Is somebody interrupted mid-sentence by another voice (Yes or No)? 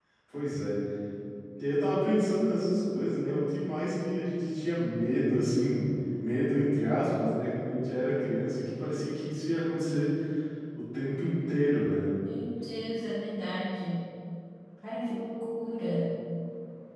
No